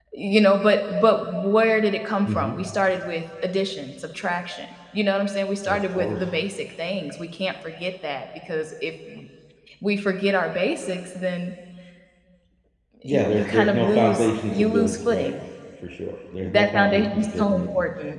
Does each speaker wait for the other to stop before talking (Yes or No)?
No